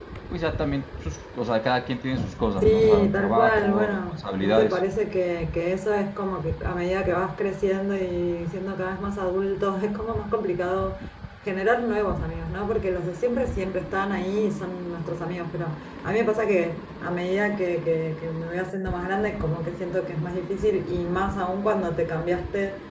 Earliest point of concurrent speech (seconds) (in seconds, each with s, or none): 2.6 s